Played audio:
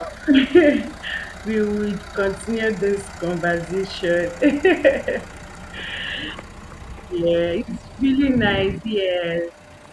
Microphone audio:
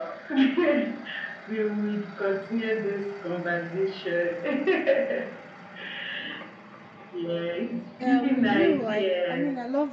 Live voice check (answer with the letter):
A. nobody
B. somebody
B